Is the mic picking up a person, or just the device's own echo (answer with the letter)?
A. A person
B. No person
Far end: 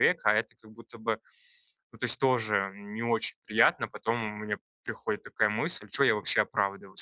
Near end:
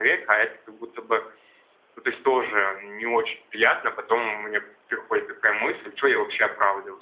B